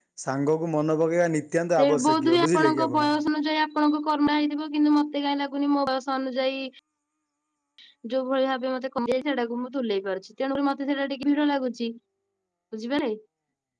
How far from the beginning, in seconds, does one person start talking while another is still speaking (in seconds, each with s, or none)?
1.8 s